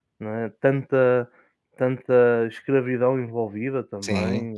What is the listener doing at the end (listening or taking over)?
taking over